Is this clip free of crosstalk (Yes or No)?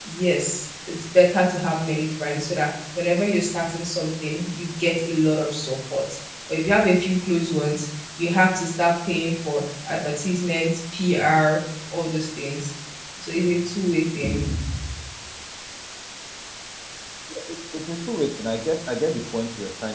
Yes